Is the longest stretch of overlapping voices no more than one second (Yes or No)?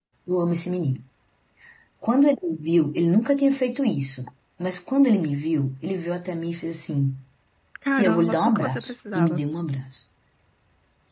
No